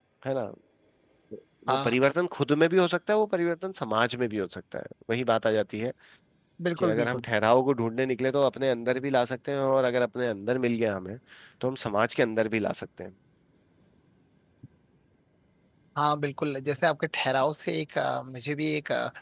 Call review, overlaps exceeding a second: none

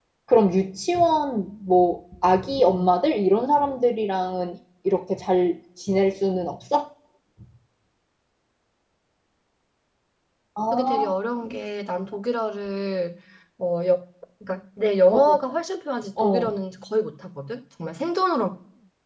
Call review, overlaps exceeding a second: none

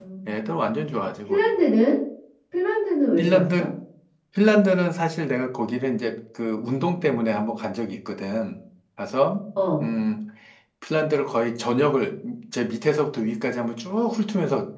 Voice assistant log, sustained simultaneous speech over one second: none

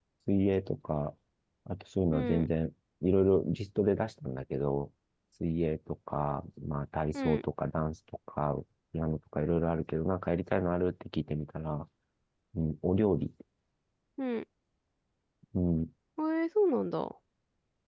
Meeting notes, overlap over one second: none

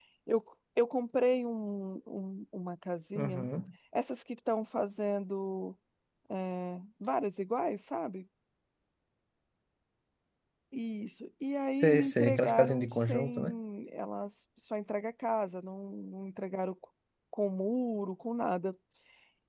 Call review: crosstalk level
present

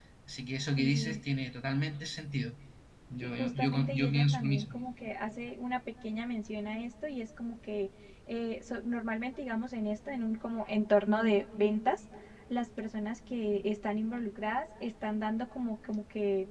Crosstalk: present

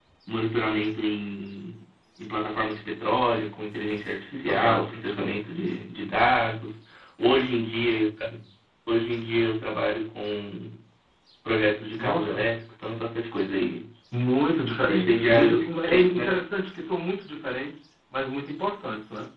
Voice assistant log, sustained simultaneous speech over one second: present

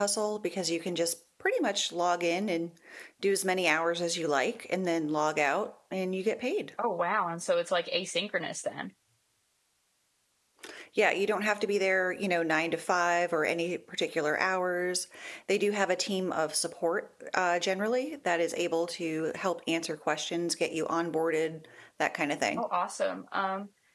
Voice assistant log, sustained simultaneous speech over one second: none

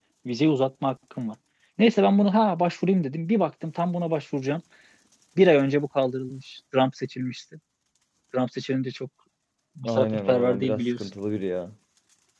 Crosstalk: present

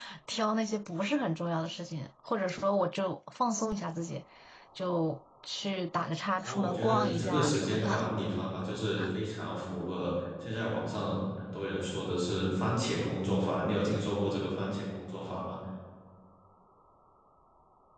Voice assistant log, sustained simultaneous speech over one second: present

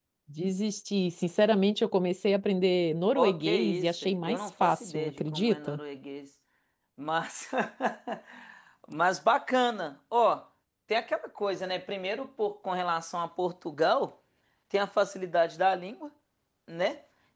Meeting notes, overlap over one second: present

